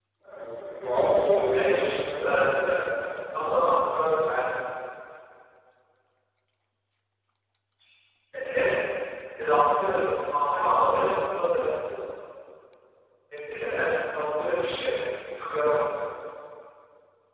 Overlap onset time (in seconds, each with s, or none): 1.5 s